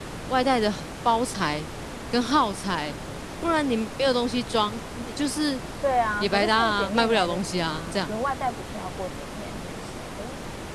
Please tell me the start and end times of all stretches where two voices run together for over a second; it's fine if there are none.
6.2-8.1

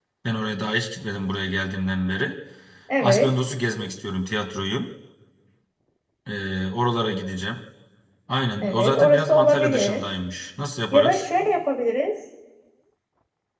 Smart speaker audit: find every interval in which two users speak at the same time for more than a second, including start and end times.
8.6-10.0

